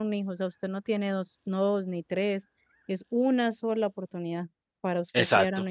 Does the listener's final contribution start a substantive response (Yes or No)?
Yes